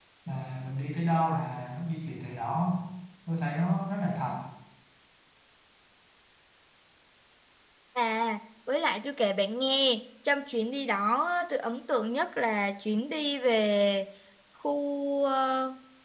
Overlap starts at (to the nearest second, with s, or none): none